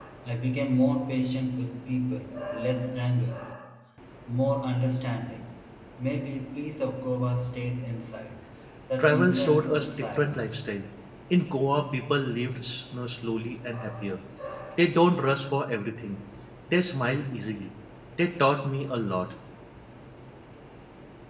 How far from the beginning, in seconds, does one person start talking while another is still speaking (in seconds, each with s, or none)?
9.0 s